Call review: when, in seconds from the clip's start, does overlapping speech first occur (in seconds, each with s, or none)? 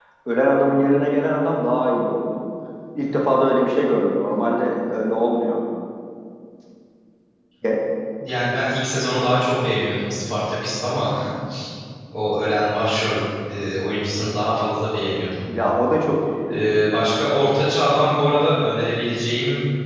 none